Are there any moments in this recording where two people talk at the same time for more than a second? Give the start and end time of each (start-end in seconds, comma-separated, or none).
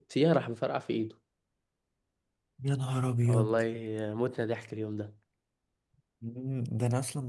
none